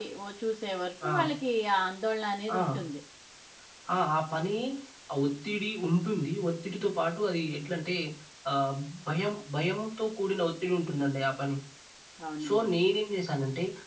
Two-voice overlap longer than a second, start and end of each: none

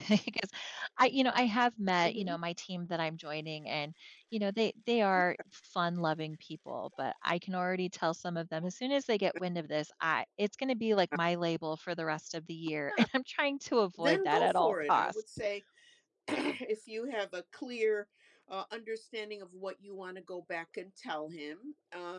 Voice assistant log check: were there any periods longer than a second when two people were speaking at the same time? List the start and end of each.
14.0-15.2

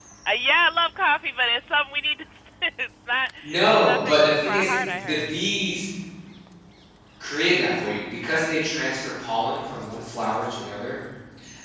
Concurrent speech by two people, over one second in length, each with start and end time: 3.4-5.3

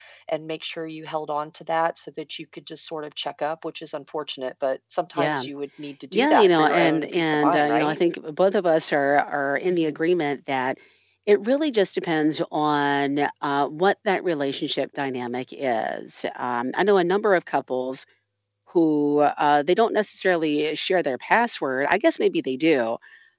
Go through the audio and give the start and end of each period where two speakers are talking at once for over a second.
6.1-8.0

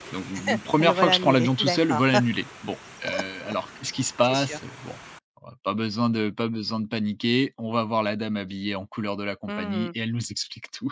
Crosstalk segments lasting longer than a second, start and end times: 0.8-2.0

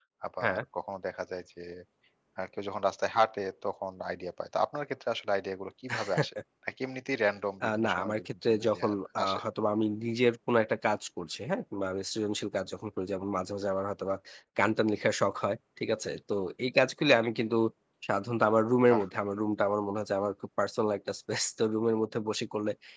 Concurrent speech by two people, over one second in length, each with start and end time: 7.6-8.9

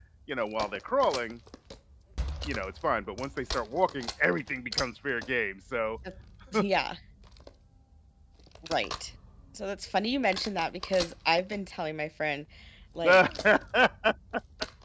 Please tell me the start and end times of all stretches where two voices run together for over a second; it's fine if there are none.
none

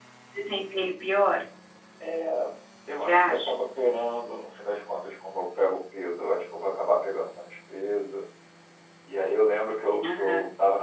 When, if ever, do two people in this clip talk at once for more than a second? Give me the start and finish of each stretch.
none

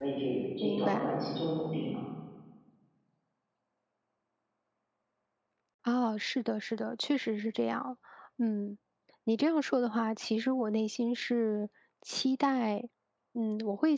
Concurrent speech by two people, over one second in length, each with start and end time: none

